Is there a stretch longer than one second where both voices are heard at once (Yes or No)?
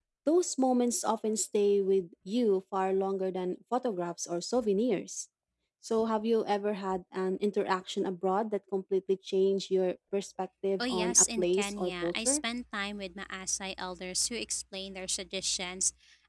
Yes